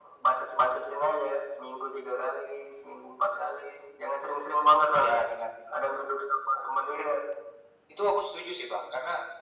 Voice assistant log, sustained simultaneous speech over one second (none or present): none